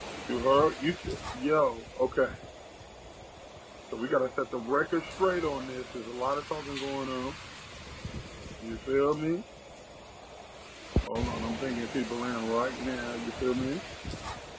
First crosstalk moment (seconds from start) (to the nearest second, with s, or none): none